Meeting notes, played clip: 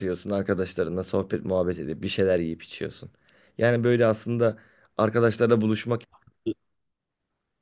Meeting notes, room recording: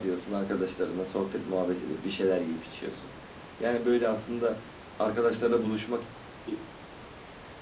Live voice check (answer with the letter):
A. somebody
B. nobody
B